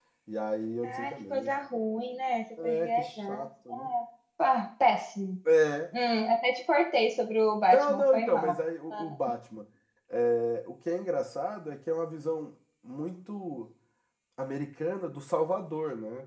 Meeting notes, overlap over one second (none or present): present